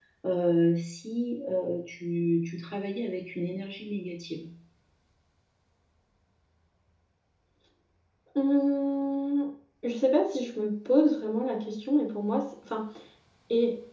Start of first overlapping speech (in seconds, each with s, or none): none